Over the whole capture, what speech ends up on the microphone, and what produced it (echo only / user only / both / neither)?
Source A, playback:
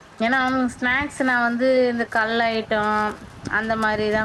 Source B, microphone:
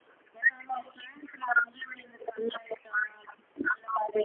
echo only